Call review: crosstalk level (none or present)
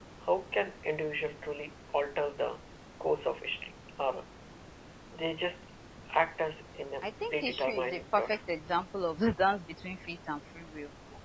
present